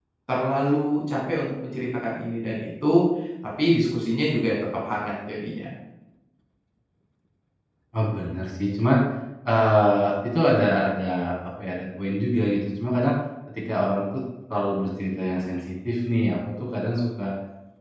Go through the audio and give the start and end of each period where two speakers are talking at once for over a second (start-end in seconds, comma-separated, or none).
none